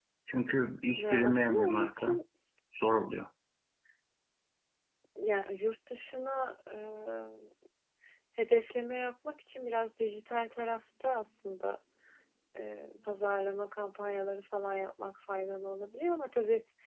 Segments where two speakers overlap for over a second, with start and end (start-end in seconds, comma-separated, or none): 1.0-2.2